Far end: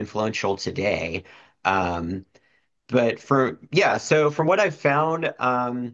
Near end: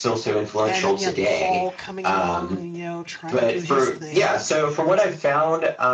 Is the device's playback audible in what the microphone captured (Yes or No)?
Yes